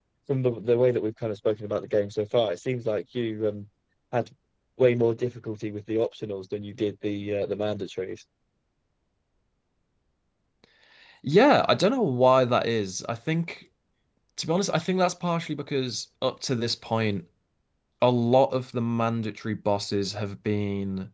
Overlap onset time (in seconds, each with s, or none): none